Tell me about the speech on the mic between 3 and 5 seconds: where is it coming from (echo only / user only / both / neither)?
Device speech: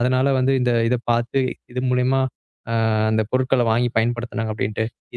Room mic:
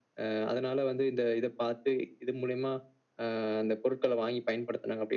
echo only